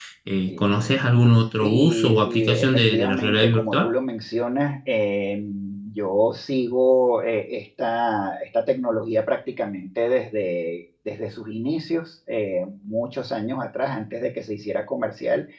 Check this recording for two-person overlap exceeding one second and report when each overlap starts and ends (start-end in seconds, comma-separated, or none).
1.6-3.9